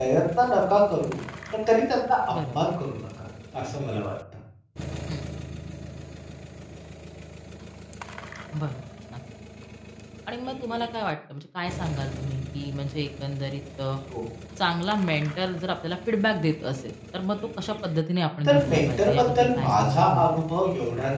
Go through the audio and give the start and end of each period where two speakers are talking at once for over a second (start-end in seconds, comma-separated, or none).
18.4-20.4